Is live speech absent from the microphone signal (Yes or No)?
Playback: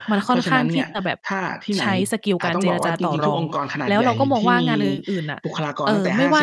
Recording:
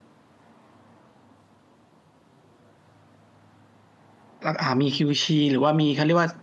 No